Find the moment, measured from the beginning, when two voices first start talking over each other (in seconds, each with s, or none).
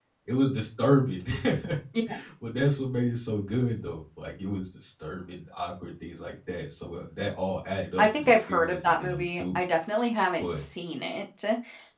8.0 s